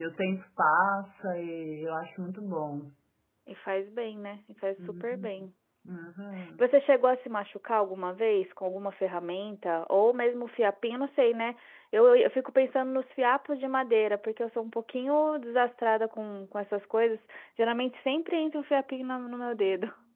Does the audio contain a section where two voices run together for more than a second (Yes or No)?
No